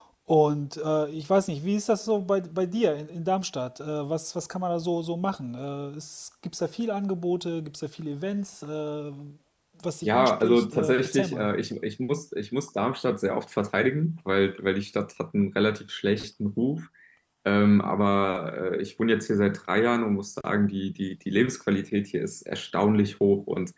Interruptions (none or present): present